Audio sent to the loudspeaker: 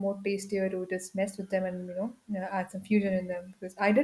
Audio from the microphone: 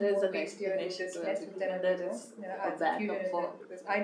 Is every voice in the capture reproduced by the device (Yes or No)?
No